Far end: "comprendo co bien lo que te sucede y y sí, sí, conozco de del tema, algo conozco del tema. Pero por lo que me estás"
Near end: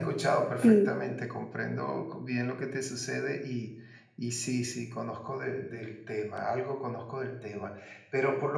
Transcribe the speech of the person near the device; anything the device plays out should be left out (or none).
Sí.